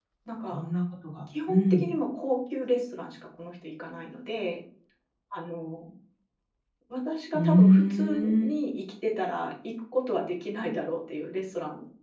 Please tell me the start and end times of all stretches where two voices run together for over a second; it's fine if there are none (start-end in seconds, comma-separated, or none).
7.3-8.5